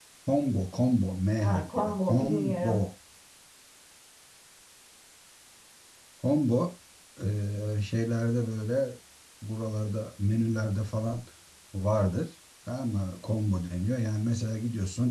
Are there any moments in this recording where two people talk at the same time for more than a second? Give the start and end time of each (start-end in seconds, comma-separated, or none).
1.4-2.8